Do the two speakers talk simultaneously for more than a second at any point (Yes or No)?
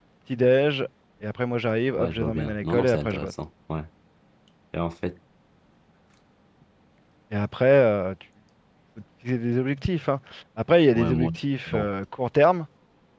Yes